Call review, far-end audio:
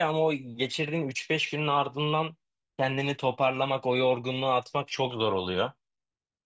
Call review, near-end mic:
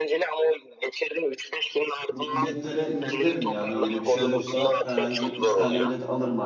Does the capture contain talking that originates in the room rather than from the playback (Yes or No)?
Yes